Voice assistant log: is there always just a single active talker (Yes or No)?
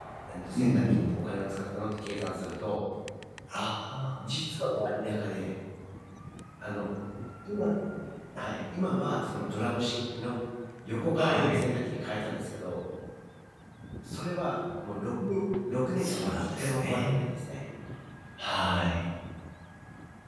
No